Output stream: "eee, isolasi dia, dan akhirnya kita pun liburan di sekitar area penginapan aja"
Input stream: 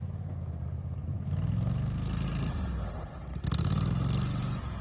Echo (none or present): none